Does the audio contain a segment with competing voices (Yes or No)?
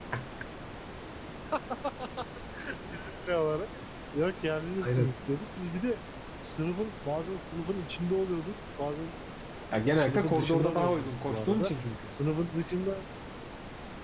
Yes